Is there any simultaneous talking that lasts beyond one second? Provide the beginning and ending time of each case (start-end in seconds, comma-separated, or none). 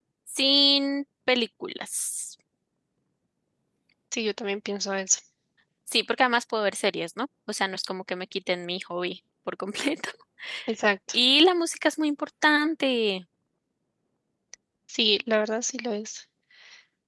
none